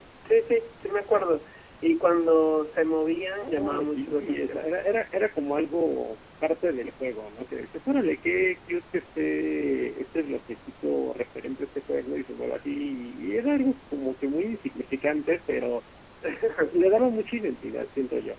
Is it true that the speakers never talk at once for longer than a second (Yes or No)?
No